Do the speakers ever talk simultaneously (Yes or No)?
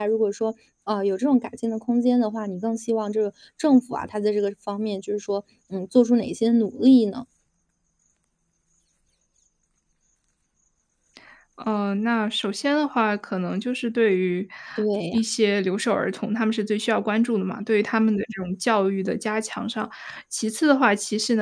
No